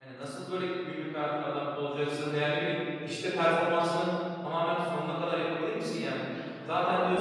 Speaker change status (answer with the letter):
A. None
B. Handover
A